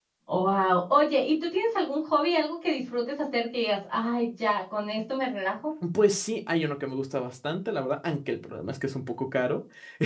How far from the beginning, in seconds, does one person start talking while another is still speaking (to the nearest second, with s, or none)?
none